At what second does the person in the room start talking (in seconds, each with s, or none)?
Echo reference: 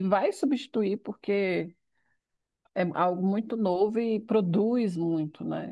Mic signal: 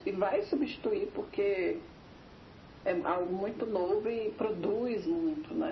none